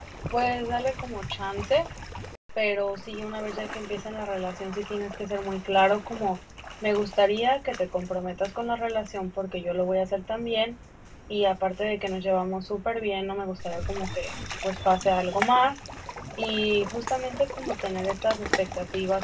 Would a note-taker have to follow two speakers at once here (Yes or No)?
No